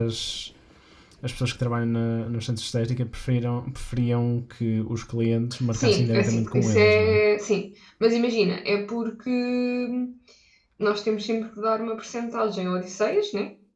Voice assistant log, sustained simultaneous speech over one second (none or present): present